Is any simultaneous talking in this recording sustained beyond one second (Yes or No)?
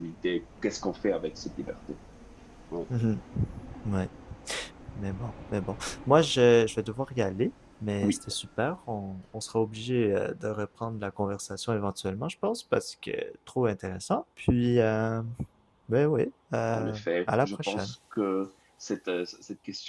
Yes